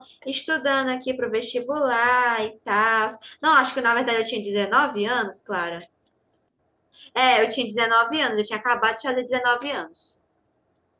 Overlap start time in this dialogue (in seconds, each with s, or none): none